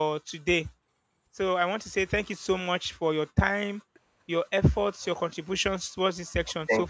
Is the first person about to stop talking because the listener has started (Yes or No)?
Yes